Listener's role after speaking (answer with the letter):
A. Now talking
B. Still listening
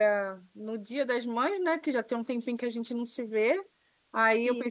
B